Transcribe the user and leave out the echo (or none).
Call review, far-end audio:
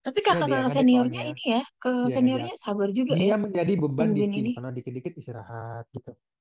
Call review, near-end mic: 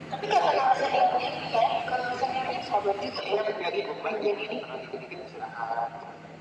none